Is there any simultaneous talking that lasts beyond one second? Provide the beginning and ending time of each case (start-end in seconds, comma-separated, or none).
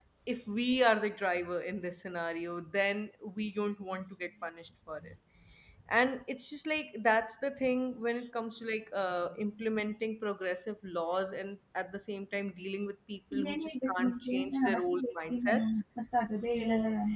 13.5-15.8